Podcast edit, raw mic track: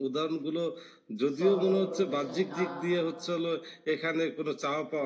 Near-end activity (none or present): present